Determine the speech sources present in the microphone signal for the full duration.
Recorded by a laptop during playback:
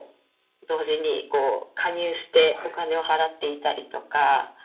both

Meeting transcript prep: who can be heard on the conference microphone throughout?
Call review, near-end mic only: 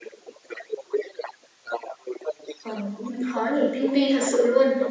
both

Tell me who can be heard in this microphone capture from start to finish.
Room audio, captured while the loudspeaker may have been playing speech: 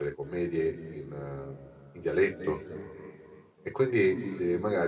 user only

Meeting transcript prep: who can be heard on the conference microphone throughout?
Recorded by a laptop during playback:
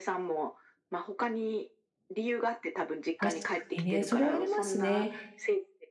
both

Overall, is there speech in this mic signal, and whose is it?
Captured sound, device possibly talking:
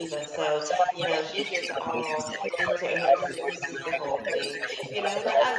both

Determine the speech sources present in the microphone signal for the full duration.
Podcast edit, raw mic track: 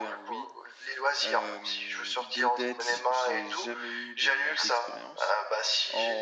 both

